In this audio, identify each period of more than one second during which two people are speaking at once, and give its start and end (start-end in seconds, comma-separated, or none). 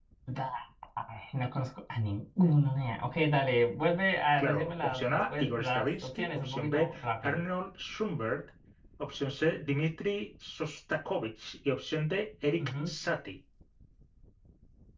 4.4-7.4